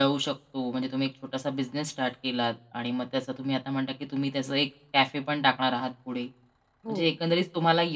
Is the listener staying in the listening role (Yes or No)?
Yes